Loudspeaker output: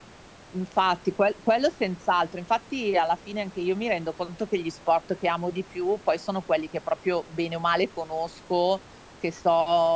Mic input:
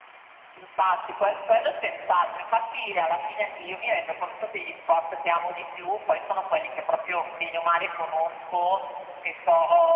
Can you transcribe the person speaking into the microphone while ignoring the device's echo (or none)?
none